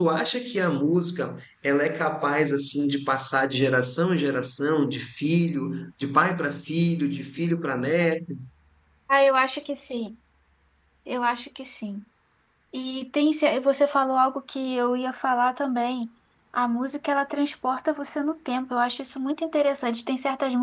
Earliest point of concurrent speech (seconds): none

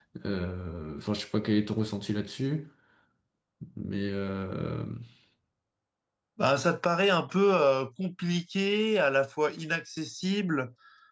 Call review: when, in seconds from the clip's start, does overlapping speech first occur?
none

